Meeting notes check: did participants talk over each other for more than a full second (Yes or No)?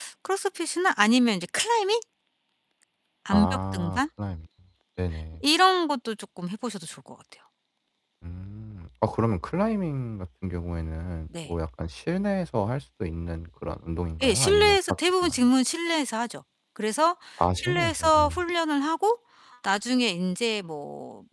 Yes